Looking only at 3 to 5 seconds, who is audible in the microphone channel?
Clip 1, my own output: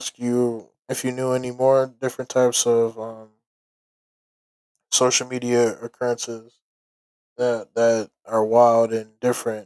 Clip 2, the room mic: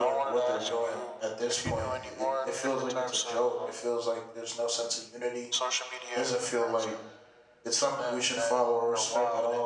both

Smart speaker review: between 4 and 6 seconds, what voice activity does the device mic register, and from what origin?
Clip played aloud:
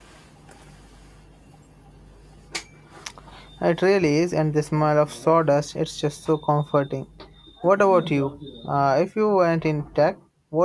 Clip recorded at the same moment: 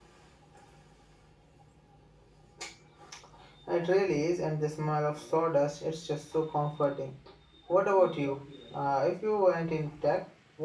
echo only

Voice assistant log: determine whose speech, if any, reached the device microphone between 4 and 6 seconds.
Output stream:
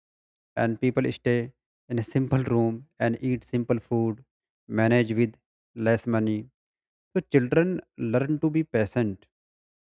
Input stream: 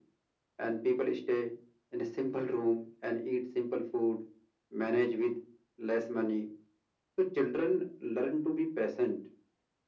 echo only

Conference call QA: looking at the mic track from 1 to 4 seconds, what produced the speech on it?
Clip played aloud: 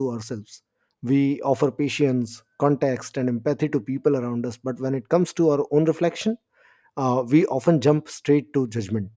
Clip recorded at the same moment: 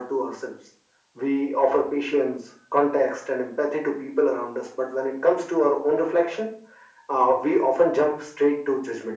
echo only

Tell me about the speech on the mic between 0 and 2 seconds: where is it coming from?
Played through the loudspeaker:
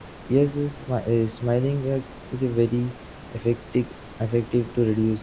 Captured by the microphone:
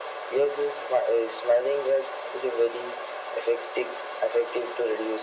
echo only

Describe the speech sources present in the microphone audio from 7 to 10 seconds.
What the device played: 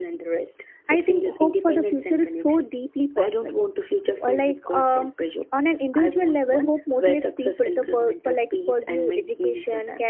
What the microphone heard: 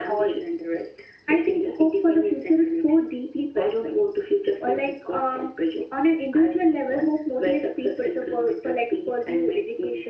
echo only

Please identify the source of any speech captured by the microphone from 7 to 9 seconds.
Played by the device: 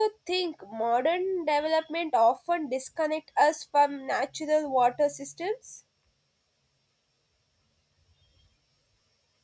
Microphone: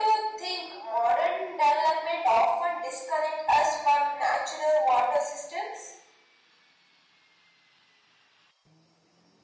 neither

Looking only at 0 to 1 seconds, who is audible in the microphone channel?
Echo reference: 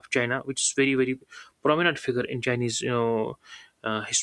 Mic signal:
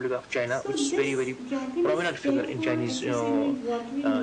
both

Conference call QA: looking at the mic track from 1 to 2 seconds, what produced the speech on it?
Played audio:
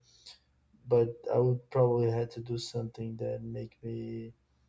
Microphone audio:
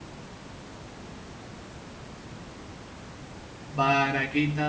neither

